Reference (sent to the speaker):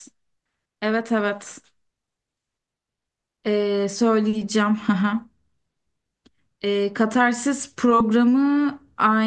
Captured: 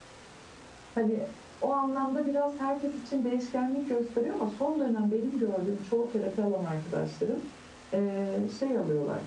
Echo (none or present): none